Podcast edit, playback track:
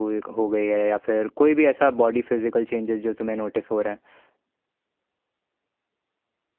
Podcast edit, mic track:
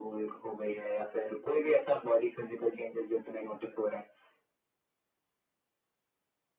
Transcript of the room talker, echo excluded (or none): none